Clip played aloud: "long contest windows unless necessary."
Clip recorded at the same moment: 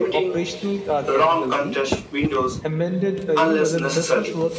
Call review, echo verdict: present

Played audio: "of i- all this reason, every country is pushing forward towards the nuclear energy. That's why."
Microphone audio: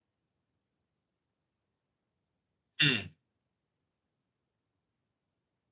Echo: none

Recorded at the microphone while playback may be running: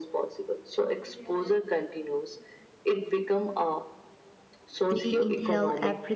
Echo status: present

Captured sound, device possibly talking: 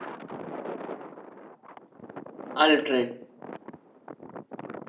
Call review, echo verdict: none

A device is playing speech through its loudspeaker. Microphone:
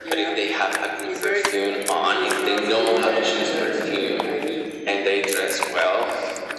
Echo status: present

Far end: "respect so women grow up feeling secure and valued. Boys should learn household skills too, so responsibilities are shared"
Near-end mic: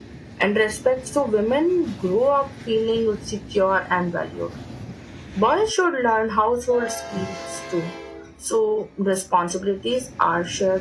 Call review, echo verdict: present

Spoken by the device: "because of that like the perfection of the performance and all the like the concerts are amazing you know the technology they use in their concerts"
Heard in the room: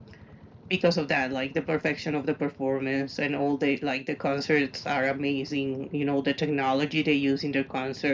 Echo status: present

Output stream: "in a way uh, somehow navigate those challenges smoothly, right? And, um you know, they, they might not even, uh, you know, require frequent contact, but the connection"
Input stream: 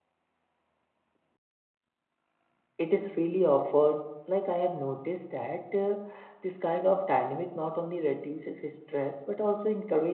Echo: none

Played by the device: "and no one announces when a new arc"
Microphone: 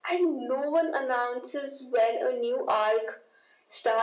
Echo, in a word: present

